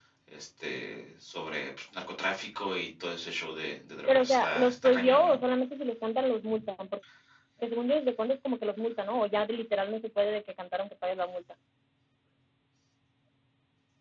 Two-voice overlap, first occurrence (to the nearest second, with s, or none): 4 s